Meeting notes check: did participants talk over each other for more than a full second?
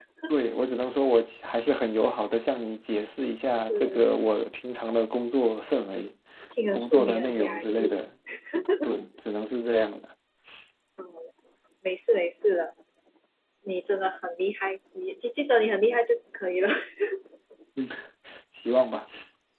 Yes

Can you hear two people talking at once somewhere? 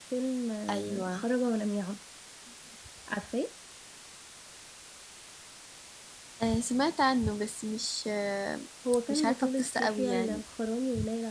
Yes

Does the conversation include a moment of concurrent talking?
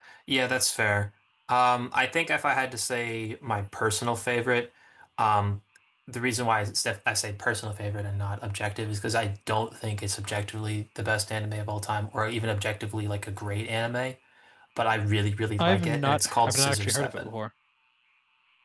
Yes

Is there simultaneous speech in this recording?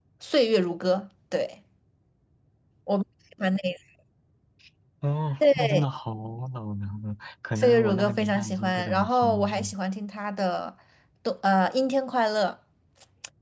Yes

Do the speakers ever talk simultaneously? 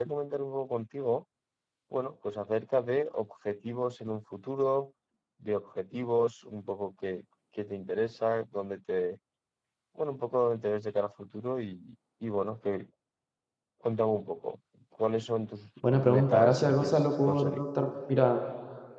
Yes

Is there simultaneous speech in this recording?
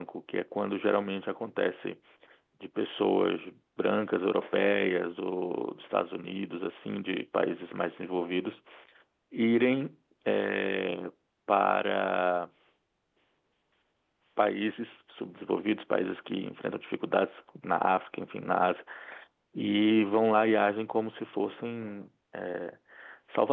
No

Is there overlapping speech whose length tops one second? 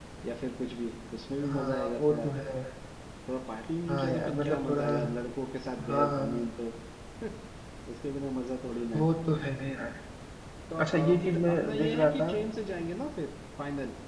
Yes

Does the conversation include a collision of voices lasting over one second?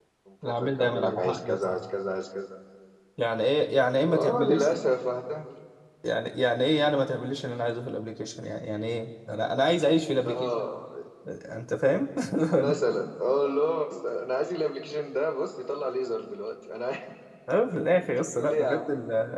Yes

